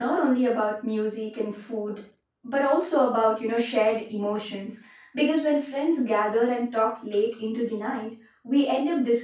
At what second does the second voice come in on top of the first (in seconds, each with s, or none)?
none